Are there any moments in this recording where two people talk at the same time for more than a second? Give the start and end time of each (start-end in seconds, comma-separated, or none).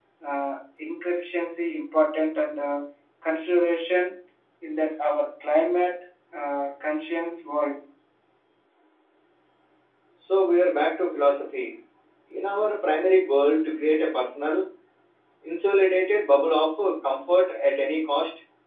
none